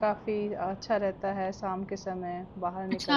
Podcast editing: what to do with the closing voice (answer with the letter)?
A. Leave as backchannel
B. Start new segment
B